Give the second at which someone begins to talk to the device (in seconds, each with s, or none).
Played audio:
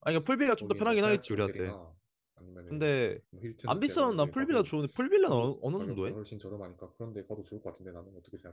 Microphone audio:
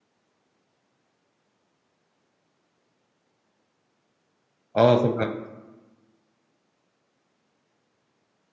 4.7 s